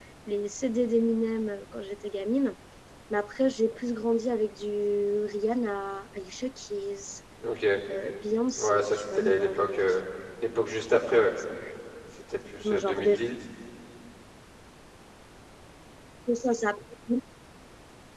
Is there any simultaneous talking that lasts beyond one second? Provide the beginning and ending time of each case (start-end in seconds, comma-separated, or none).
8.6-9.8